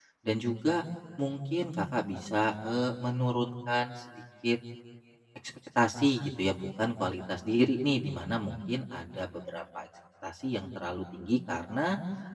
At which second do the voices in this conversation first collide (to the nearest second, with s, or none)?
none